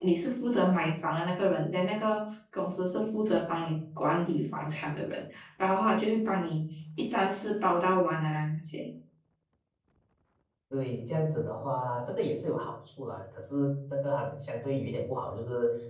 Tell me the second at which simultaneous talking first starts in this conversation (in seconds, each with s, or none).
none